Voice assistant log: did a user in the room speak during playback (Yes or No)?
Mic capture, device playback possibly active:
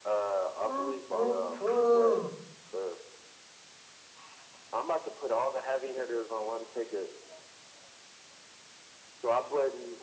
Yes